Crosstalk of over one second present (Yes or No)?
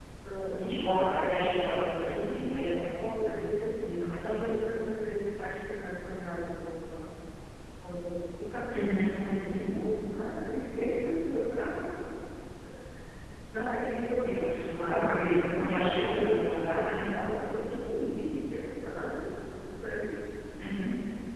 Yes